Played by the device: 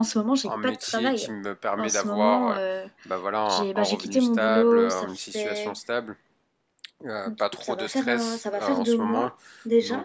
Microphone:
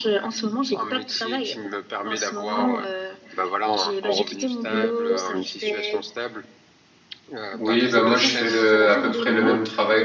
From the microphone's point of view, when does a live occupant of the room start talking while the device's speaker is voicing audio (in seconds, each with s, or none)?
7.6 s